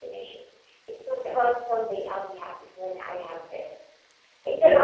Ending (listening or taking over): listening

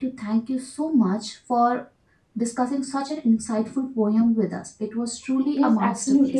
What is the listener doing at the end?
taking over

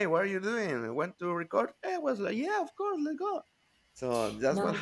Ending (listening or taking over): taking over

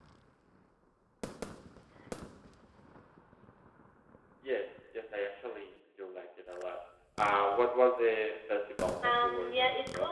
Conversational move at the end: taking over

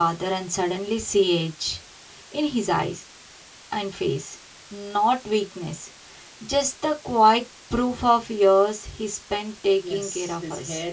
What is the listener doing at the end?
taking over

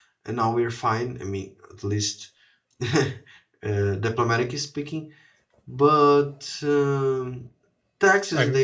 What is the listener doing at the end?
listening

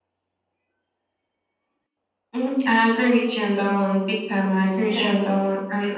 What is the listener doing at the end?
listening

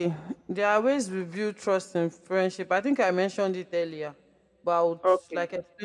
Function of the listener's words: listening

